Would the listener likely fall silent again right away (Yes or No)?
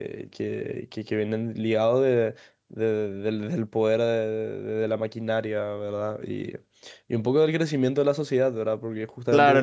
No